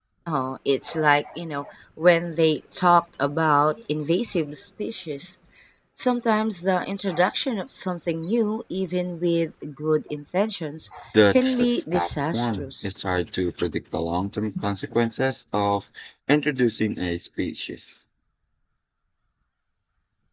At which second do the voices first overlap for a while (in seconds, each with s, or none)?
11.3 s